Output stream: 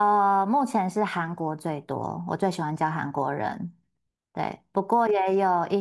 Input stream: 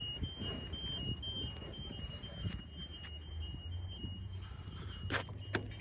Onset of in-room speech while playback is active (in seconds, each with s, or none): none